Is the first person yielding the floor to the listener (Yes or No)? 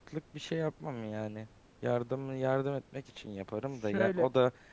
No